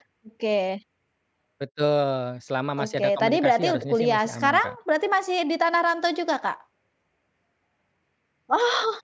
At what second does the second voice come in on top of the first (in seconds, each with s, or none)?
2.8 s